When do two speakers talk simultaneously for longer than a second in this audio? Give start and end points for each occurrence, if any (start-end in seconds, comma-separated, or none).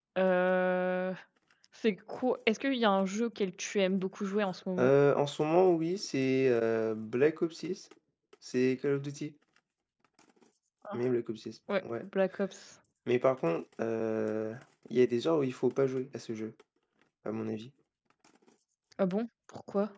none